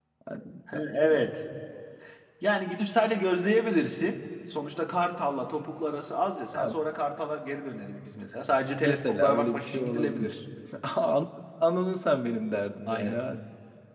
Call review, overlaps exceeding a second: present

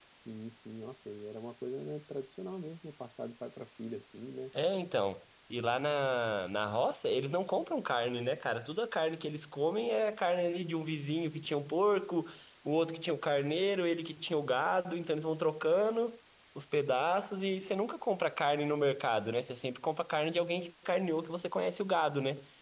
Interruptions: none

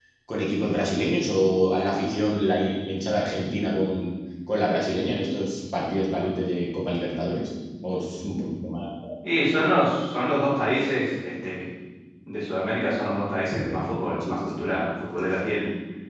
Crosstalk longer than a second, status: none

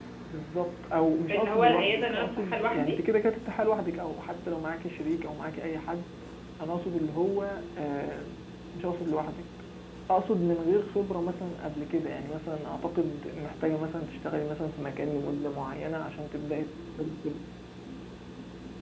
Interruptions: present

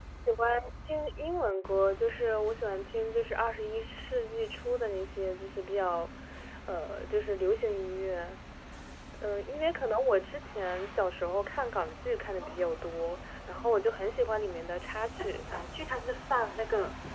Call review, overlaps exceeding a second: none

